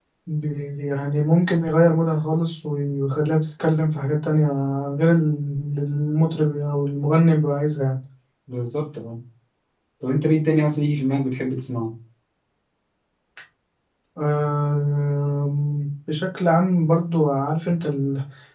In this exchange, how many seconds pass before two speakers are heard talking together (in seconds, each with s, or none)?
none